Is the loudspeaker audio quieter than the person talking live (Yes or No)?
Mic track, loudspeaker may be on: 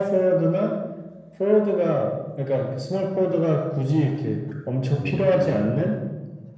No